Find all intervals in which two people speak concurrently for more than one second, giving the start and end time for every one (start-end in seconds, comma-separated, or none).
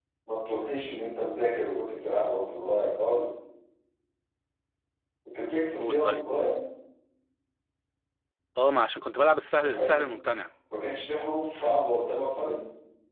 none